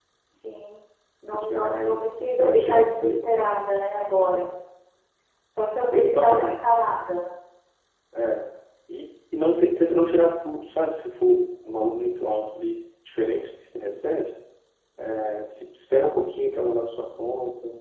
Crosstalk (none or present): present